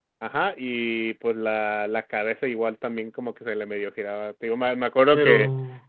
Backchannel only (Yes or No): Yes